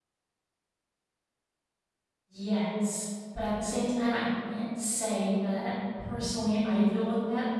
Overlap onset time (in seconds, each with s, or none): none